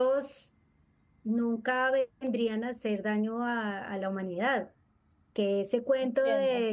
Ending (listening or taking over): listening